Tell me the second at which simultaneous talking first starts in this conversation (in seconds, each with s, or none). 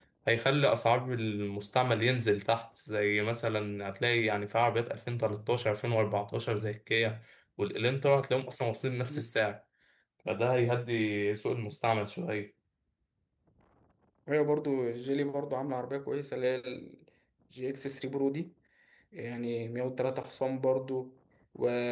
none